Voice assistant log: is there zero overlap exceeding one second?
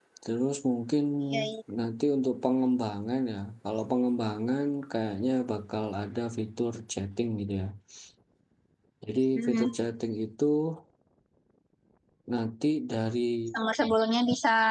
Yes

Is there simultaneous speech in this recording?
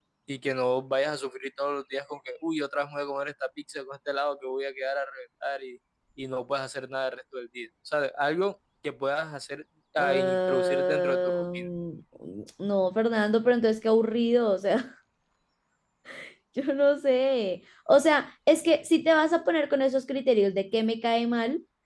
Yes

